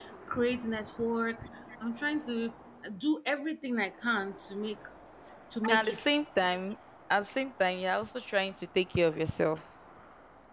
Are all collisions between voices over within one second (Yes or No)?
Yes